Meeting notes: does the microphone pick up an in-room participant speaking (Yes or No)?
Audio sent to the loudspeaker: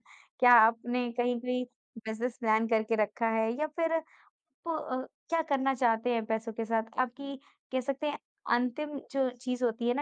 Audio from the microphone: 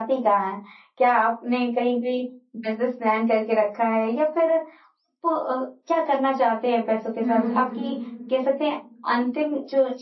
Yes